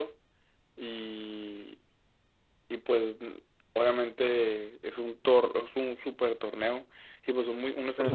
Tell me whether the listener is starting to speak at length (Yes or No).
No